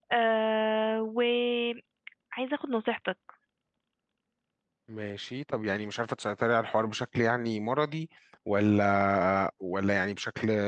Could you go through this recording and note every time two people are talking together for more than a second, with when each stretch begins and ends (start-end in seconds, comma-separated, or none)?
none